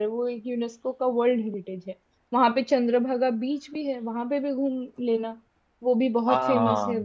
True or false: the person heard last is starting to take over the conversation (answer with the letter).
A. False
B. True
B